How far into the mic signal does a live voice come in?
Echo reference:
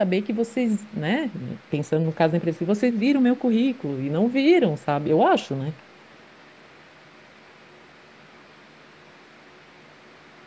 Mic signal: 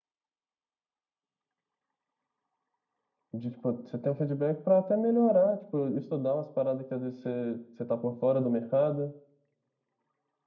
3 s

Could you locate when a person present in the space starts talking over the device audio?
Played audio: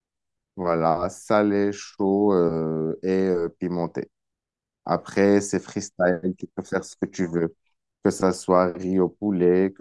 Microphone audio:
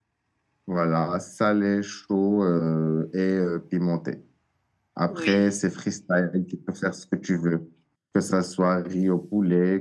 5 s

